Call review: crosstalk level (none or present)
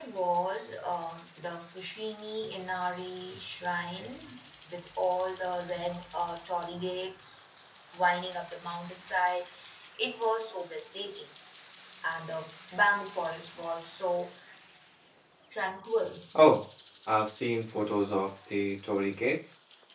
none